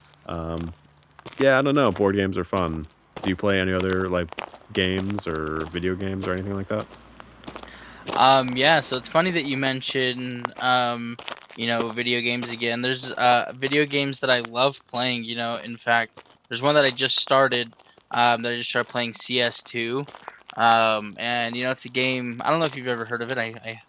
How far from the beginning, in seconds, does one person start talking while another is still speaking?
none

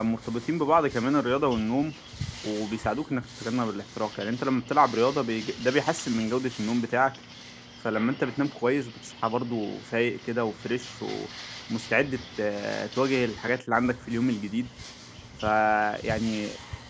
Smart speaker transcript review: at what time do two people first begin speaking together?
none

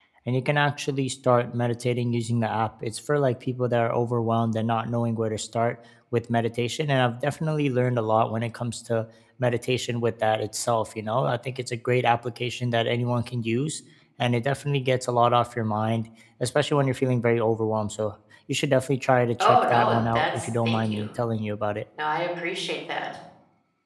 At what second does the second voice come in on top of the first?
19.4 s

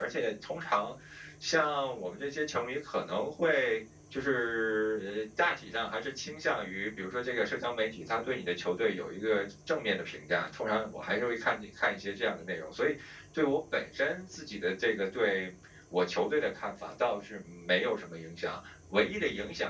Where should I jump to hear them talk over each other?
none

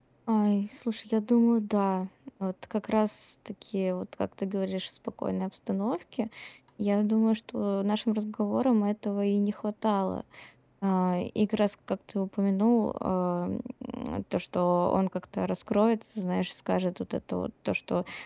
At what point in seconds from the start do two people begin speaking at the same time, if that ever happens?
none

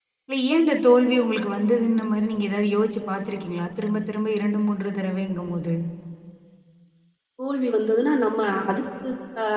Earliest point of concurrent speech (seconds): none

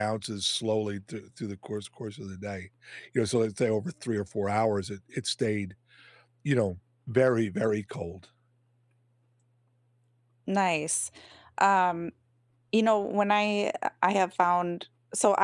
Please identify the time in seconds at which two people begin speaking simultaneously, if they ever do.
none

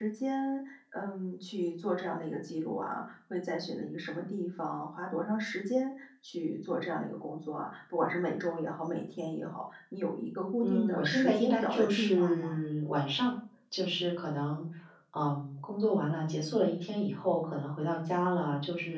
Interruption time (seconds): 10.6 s

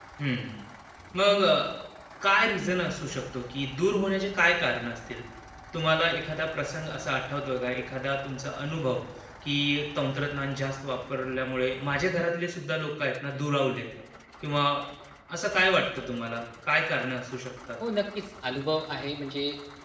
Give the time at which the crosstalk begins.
none

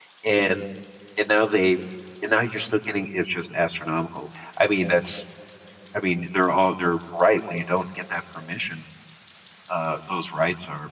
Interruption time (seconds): none

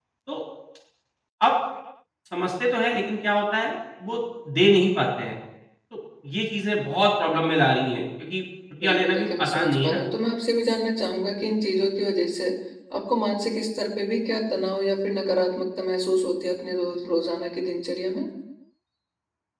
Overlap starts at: 8.8 s

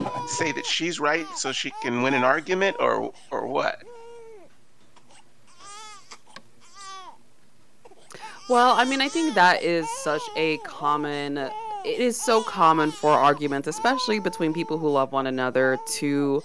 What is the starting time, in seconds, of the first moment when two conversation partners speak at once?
none

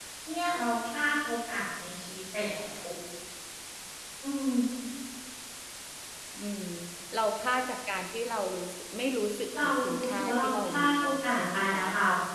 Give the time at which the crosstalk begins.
9.5 s

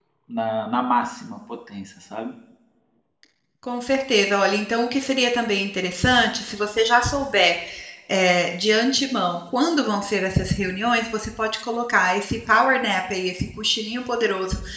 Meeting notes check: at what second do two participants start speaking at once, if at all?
none

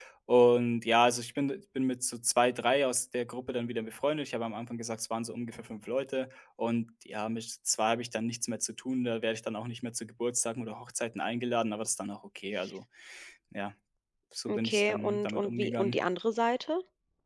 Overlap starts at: 14.5 s

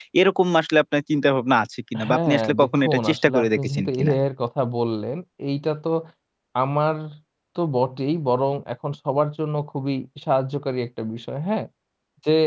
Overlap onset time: 1.9 s

